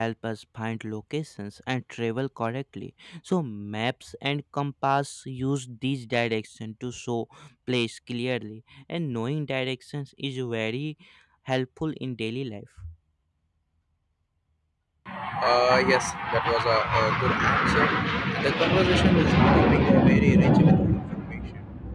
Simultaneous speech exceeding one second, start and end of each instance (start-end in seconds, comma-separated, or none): none